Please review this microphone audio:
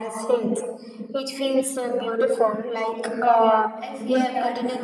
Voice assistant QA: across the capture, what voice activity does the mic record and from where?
both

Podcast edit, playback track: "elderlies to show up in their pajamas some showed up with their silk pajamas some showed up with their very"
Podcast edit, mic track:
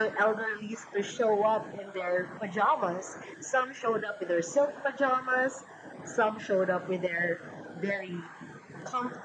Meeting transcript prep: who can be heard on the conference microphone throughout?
echo only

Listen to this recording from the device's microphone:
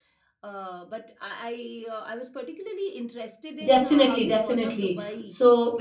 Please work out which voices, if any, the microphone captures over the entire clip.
both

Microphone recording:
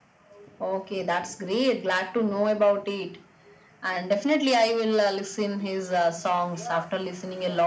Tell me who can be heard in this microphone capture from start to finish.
both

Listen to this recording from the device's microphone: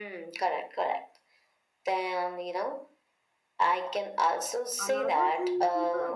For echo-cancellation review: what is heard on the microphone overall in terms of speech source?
both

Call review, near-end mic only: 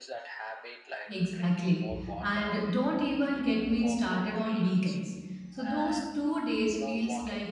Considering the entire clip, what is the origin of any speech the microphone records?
both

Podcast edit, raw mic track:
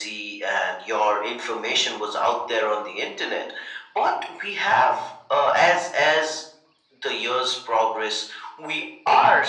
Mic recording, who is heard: echo only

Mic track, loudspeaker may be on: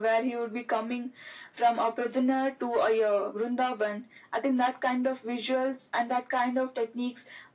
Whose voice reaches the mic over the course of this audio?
echo only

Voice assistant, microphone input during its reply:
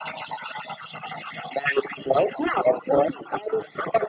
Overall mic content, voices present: echo only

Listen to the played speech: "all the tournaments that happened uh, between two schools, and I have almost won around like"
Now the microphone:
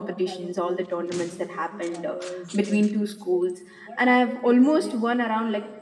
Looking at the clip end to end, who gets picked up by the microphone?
both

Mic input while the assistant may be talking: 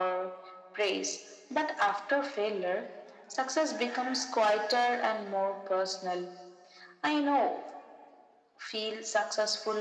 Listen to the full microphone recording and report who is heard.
echo only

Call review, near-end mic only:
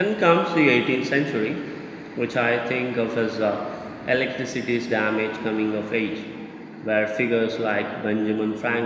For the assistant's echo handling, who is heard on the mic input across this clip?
user only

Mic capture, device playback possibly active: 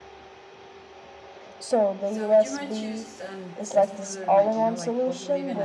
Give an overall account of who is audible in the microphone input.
both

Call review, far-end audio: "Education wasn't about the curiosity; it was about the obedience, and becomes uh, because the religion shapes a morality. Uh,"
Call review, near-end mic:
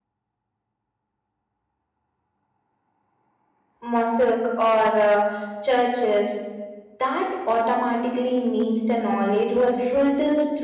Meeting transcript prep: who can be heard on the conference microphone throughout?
user only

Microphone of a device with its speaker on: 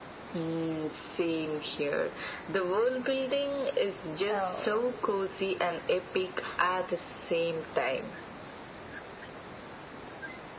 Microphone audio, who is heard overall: both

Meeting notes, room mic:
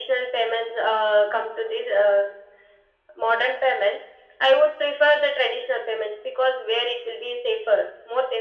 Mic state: echo only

